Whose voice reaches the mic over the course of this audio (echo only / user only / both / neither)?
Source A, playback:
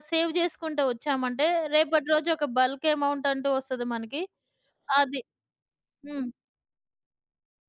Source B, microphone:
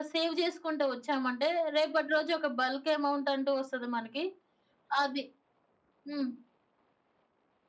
echo only